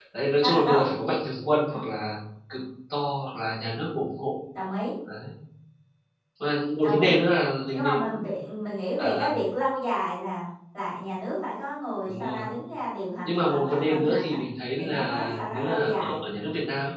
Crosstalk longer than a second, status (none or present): present